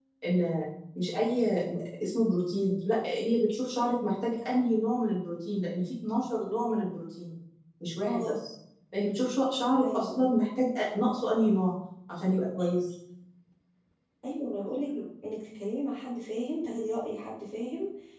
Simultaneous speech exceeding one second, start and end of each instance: none

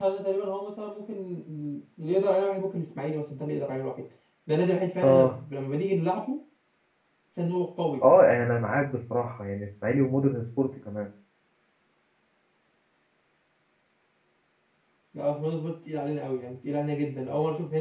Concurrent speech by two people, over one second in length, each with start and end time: none

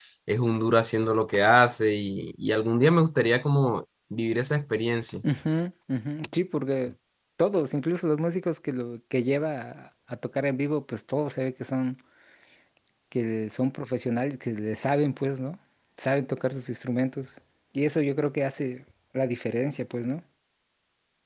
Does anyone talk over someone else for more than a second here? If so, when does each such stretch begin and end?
none

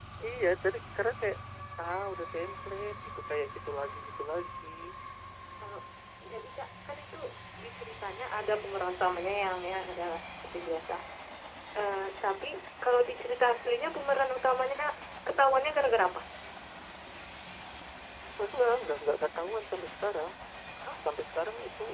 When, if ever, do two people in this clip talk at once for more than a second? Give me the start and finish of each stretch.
none

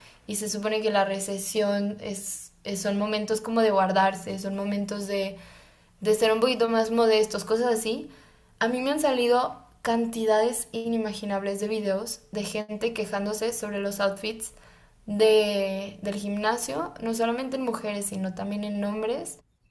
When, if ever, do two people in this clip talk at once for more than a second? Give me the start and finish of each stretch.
none

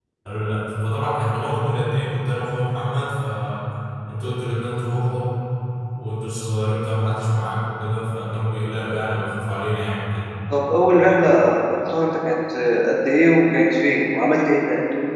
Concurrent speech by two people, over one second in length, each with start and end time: none

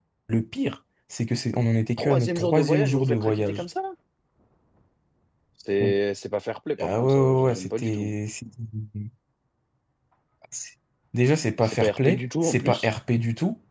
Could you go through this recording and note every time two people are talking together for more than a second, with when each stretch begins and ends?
2.0-3.6, 6.8-8.2, 11.6-12.9

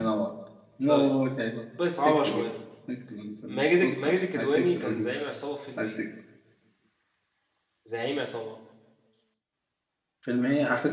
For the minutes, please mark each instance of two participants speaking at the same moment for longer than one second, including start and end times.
3.5-5.1

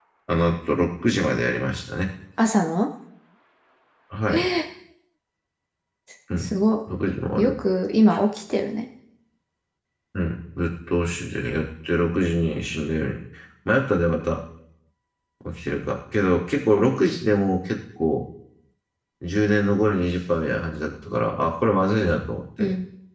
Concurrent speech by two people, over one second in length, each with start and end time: none

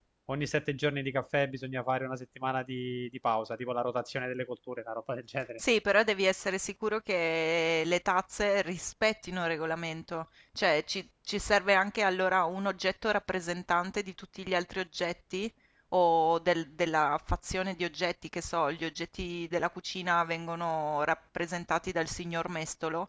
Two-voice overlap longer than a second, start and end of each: none

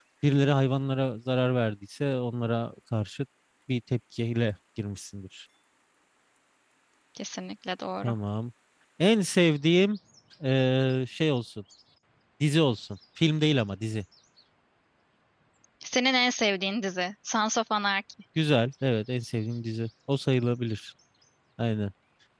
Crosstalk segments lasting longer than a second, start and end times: none

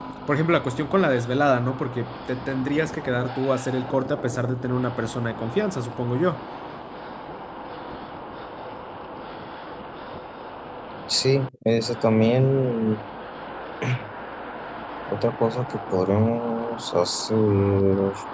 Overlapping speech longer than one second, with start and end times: none

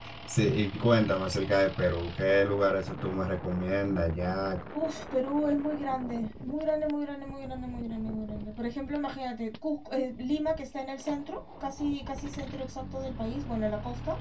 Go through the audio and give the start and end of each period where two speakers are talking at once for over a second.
none

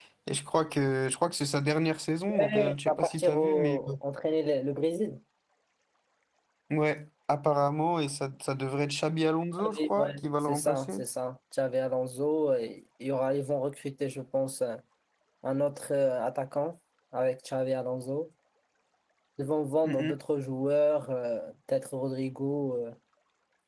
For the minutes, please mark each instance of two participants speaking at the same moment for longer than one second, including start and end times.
2.4-3.8, 9.6-10.9

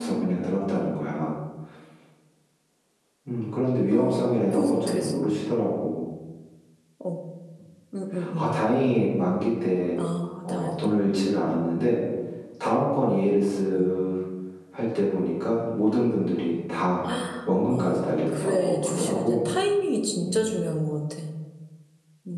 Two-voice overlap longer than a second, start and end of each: 3.9-5.2, 17.7-19.4

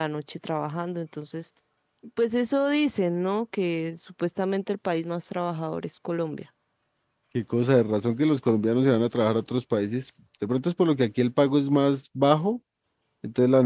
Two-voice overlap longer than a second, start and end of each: none

